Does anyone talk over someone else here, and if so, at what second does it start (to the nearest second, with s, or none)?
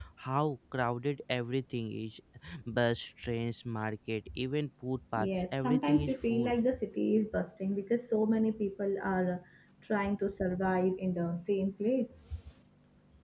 5 s